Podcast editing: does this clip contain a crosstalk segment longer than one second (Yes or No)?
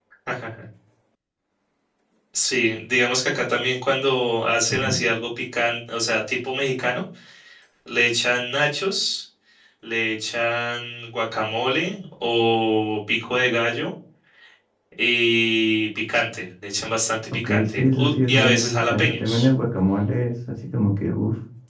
Yes